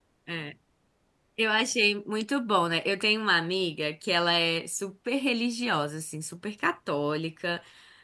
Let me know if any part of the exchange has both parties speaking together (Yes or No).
No